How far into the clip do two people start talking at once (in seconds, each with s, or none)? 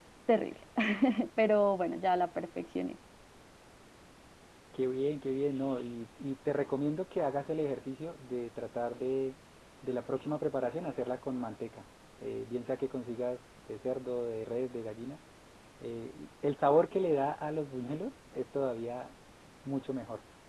none